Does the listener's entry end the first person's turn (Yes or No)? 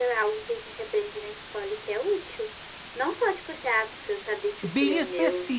Yes